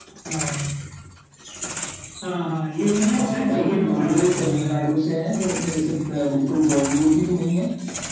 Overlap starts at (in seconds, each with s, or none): 3.1 s